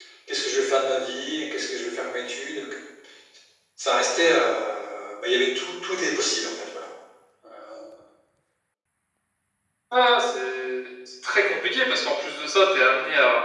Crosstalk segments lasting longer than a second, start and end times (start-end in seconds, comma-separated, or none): none